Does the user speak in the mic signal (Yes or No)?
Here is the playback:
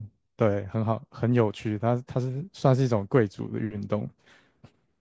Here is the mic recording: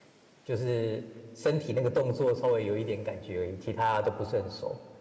Yes